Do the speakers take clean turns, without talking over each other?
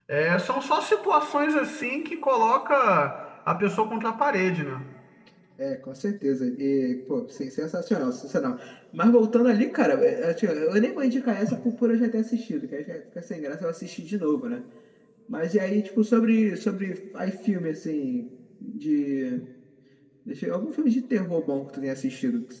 Yes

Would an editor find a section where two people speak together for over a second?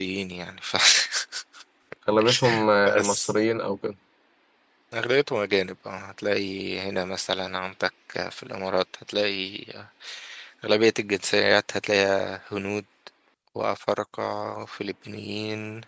No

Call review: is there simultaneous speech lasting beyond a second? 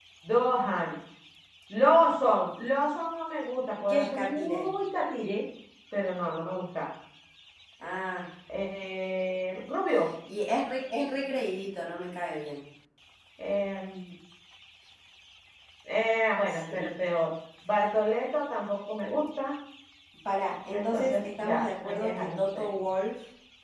Yes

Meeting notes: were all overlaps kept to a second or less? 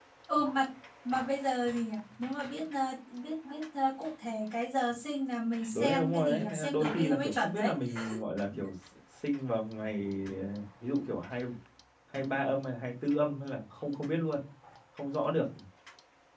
No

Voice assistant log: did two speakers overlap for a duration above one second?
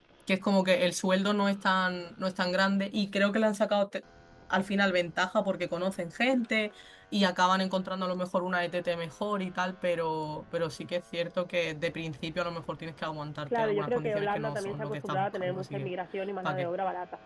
Yes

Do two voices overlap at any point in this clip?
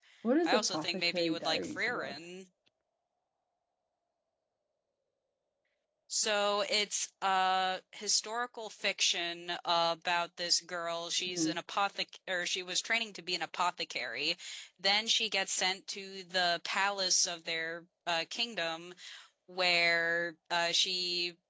Yes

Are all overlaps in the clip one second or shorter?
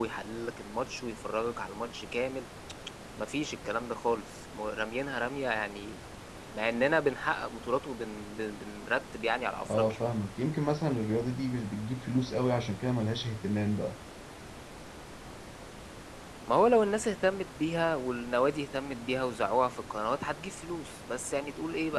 Yes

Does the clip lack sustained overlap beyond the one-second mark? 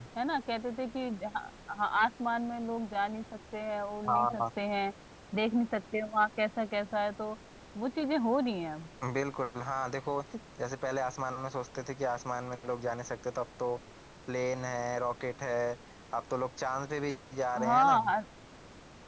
Yes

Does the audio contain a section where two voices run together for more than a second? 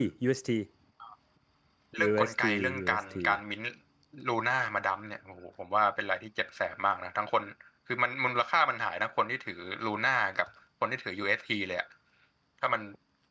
Yes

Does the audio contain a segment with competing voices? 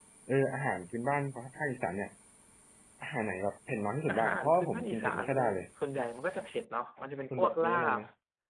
Yes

